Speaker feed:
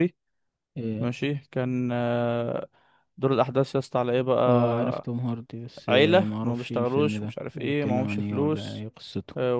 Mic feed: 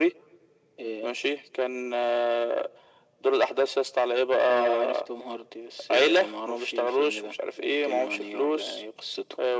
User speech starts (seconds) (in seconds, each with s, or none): none